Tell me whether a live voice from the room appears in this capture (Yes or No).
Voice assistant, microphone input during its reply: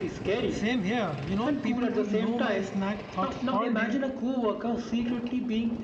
Yes